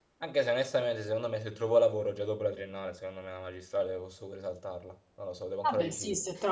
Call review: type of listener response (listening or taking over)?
taking over